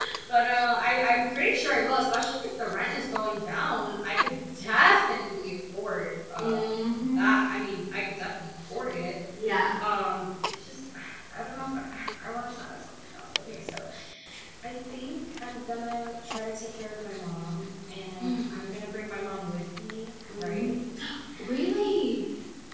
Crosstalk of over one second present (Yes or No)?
No